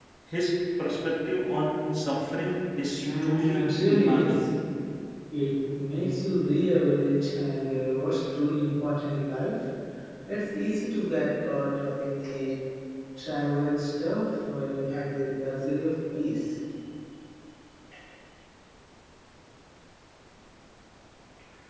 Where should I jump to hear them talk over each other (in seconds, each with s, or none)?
3.0 s